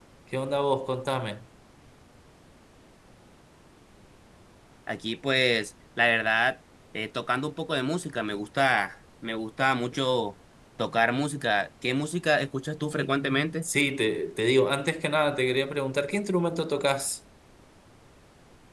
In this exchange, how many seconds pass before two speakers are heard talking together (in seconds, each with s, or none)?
none